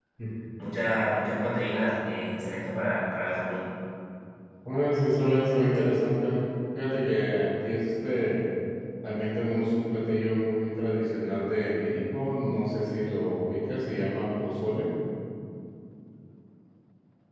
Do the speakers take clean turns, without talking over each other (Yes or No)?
Yes